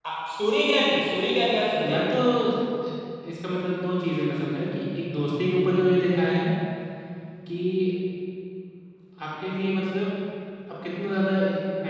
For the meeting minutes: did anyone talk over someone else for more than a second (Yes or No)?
No